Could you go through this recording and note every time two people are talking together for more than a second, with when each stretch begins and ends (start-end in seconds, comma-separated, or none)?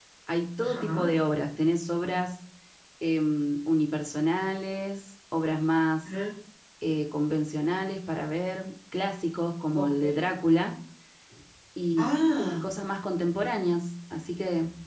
none